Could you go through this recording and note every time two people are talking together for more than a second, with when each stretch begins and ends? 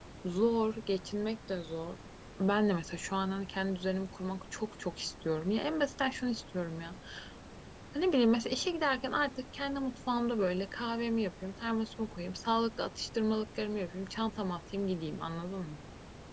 none

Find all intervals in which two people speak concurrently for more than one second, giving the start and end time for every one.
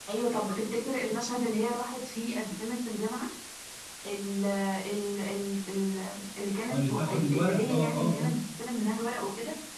6.7-8.3

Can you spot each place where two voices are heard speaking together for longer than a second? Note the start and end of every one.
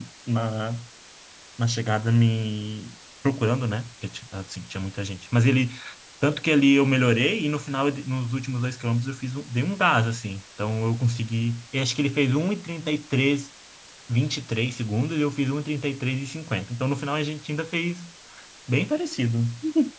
none

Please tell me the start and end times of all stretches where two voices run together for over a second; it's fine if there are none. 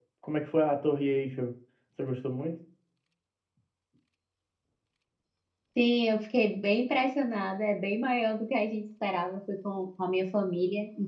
none

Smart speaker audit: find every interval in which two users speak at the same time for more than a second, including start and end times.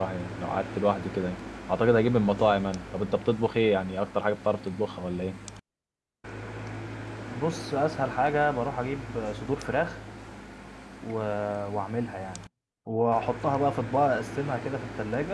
none

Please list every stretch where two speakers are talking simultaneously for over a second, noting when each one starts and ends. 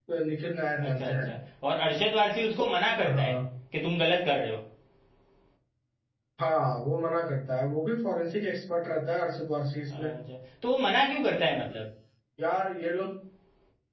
none

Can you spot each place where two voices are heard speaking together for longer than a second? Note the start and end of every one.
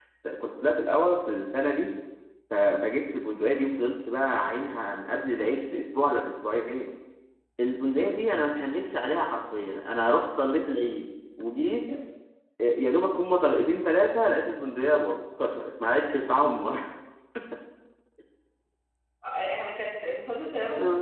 none

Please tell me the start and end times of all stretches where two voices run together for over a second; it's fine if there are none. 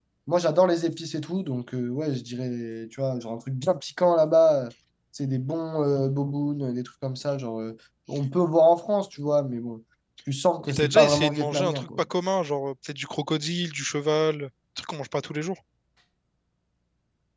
10.7-12.0

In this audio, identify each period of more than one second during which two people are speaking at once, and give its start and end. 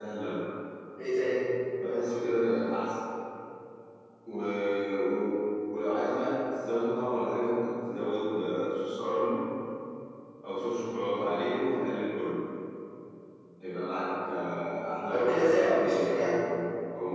15.1-16.4

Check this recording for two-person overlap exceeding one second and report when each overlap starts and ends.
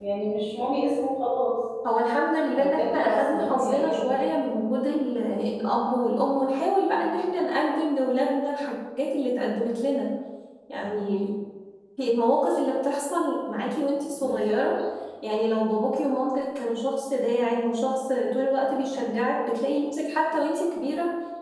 2.6-4.2

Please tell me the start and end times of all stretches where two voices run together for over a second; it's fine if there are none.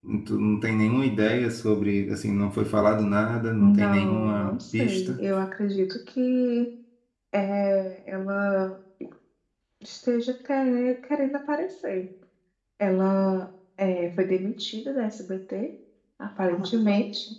3.6-5.2

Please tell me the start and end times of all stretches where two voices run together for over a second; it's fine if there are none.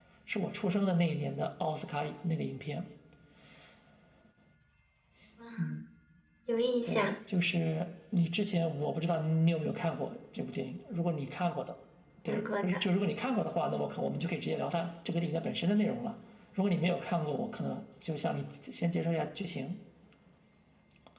none

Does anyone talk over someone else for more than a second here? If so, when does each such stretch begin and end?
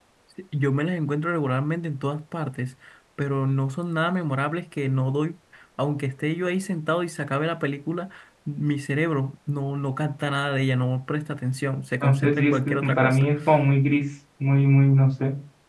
12.0-13.3

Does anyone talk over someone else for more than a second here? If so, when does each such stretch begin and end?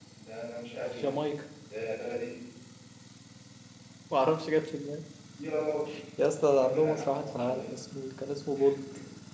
6.5-7.7

